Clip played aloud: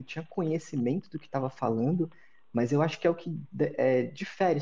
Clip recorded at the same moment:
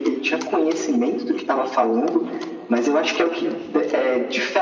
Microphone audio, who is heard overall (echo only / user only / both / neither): echo only